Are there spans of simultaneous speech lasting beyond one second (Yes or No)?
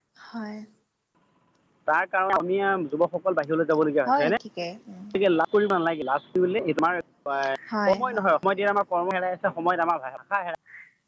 No